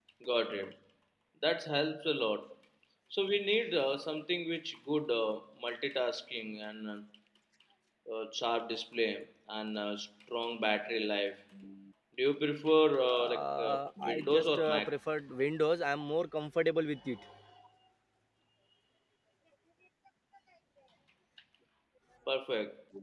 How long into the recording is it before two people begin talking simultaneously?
13.1 s

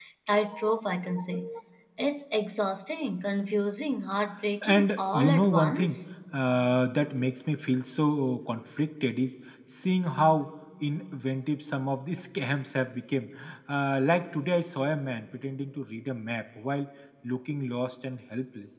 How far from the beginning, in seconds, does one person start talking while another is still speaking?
4.6 s

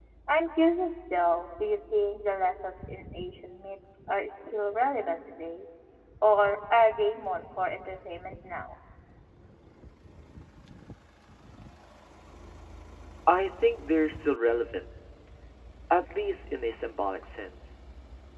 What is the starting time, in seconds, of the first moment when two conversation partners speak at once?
none

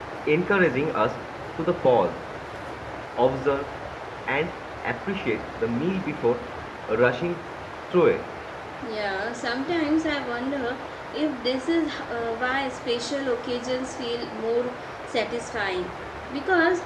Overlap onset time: none

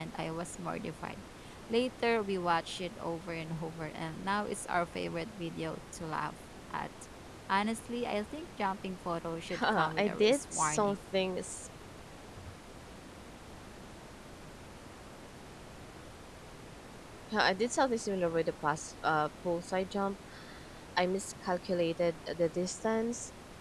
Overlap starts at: 9.5 s

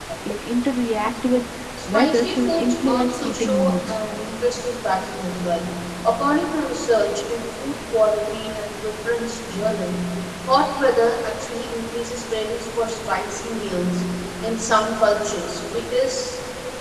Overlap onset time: 1.9 s

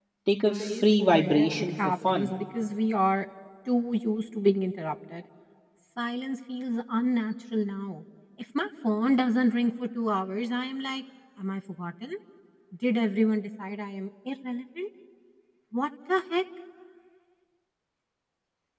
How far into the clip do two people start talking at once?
0.5 s

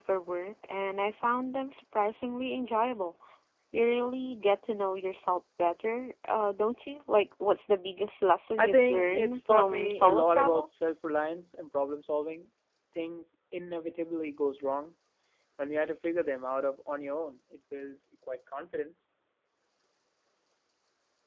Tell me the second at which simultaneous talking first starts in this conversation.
8.6 s

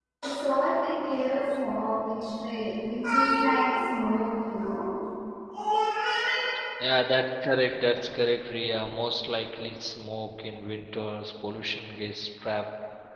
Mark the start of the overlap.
none

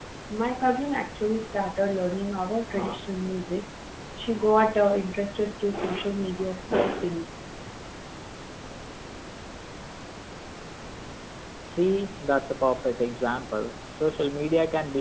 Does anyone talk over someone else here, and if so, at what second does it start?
none

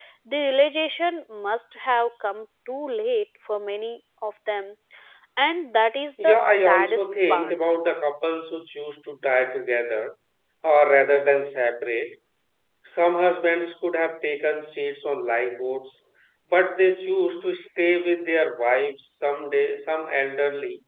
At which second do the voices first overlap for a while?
6.2 s

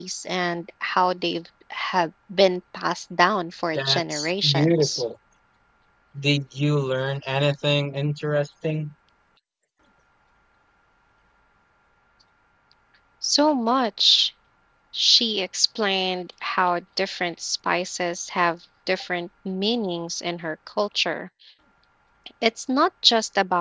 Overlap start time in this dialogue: 3.7 s

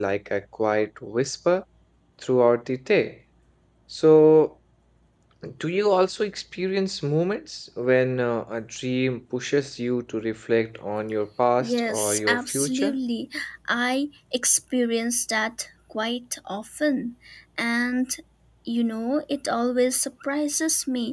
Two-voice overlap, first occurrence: 11.6 s

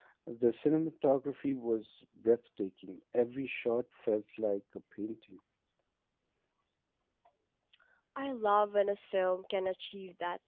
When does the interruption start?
none

